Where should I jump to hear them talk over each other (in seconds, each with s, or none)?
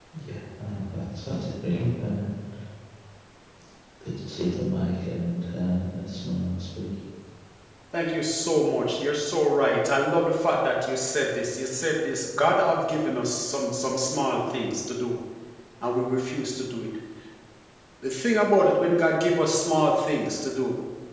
none